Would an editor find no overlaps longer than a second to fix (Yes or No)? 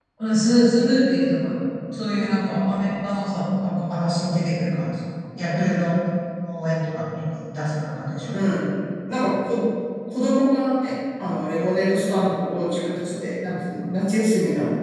Yes